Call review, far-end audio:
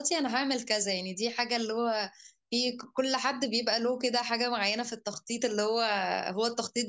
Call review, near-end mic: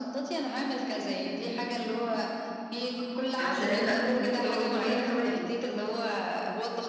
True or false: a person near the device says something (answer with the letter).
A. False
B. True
B